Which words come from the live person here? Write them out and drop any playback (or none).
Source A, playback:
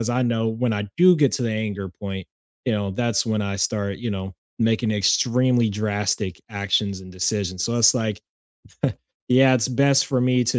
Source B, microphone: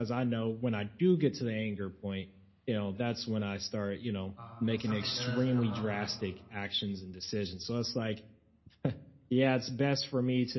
um, when something does come up,